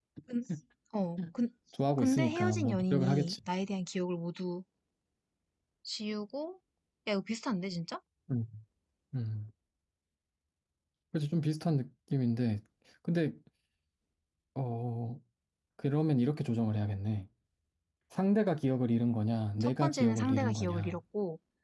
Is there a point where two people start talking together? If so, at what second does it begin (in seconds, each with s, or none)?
2.0 s